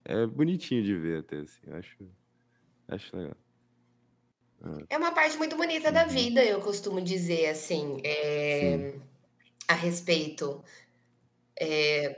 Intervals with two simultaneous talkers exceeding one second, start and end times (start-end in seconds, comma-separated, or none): none